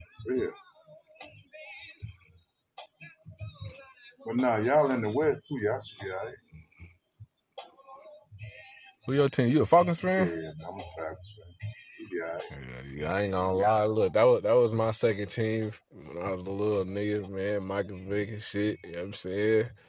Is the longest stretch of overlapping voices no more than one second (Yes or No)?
Yes